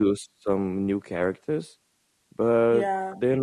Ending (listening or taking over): taking over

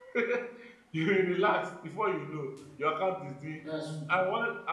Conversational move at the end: listening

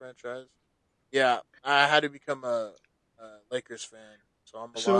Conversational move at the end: taking over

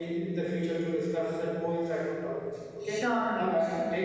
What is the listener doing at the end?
taking over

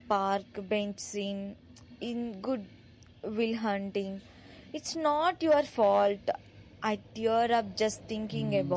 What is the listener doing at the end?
taking over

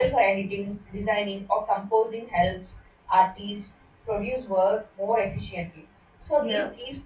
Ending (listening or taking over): listening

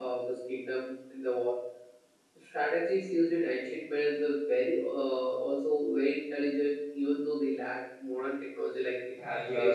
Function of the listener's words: taking over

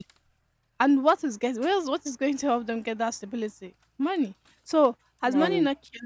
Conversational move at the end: listening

